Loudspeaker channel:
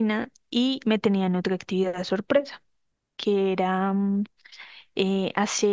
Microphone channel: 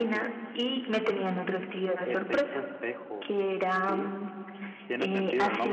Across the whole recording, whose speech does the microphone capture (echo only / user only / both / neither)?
both